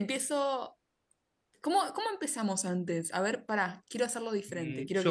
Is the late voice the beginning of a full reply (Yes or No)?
Yes